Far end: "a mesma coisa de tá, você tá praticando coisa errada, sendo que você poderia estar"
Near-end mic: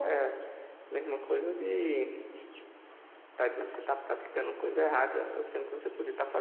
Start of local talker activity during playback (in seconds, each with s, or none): none